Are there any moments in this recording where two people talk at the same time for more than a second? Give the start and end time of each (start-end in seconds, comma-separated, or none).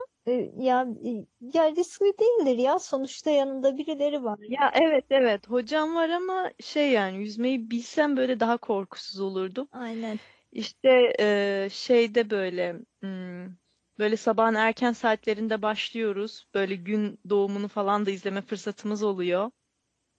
none